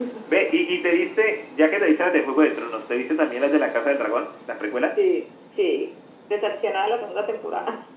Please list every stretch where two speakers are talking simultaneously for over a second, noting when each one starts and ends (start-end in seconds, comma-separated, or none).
none